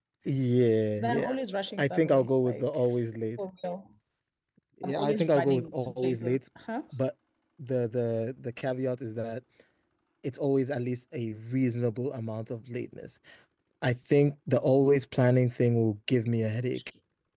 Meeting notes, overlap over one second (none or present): present